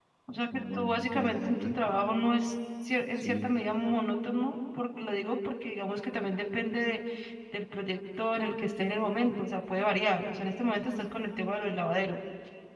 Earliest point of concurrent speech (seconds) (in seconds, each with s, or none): 0.7 s